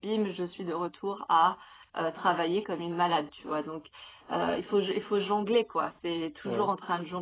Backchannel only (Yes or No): Yes